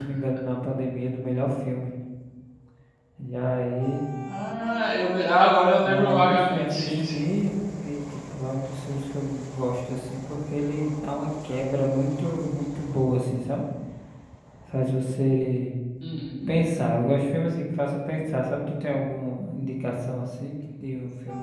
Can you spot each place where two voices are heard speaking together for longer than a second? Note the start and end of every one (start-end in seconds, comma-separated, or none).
5.8-7.3